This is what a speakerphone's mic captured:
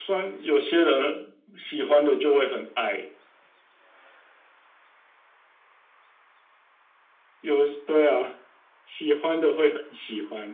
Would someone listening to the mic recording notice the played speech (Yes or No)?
Yes